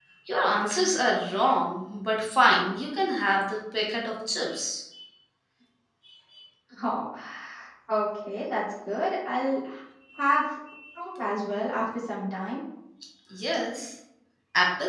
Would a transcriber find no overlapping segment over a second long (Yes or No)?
Yes